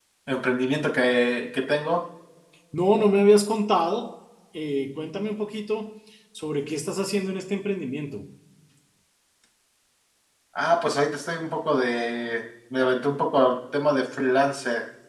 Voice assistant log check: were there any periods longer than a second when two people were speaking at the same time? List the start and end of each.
none

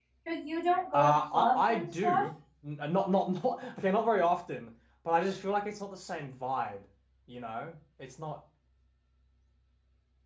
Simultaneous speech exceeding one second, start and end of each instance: 0.9-2.2

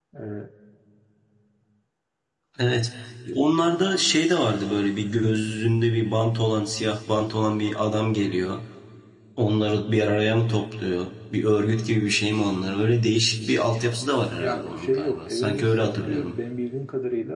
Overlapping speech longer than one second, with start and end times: 14.4-16.4

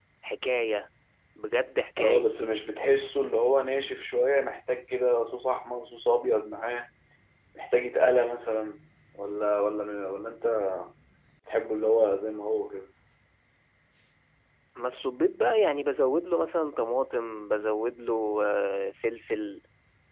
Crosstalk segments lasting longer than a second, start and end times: none

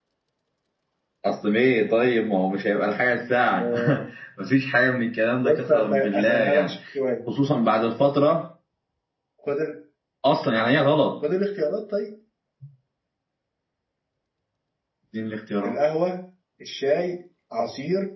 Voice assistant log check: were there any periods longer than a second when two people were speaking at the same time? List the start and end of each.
5.4-6.7

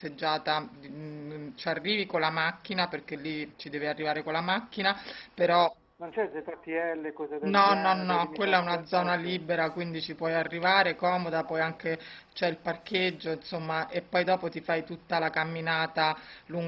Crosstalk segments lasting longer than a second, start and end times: 7.4-9.4

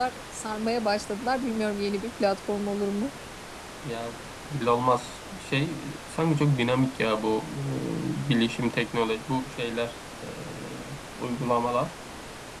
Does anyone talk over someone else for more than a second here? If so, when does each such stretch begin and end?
none

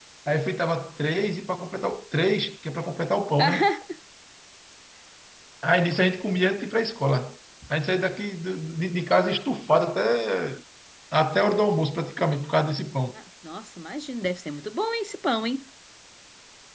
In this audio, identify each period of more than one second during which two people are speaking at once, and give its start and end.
none

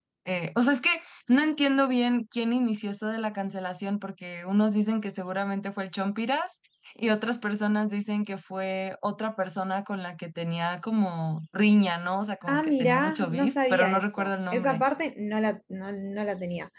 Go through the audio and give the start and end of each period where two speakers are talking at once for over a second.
12.5-14.8

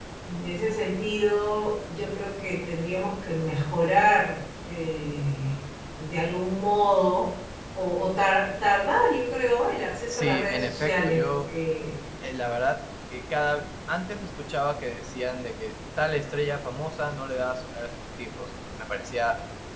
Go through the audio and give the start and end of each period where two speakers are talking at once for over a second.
10.1-11.4

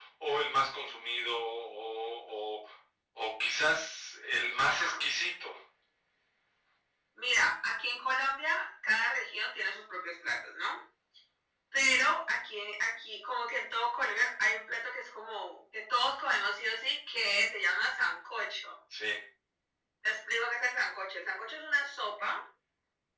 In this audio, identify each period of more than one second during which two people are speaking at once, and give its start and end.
none

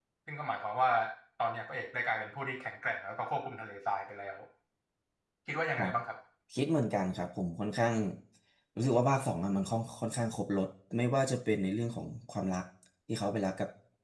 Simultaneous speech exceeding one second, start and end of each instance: none

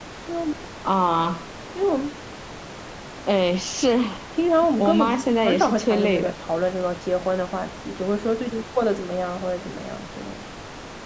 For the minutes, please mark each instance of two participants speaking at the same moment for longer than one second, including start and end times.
4.8-6.3

